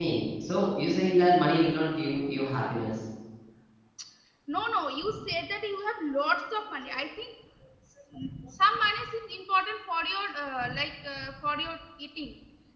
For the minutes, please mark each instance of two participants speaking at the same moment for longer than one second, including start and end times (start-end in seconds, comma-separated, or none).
none